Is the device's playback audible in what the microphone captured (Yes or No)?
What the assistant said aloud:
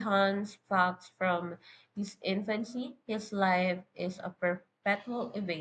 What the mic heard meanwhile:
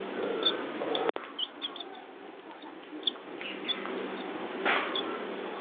No